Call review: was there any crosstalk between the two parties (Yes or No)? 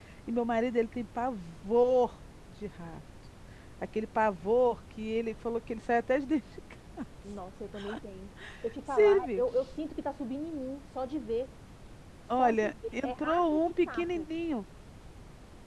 Yes